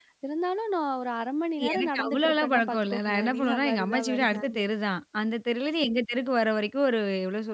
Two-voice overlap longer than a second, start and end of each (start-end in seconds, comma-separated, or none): 1.7-4.6